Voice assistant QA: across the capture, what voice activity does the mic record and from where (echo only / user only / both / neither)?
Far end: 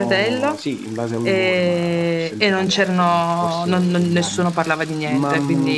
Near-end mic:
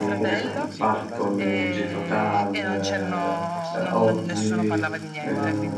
both